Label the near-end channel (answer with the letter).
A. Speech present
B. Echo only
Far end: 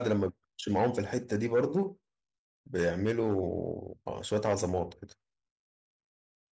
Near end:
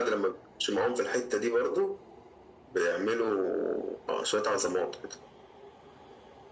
B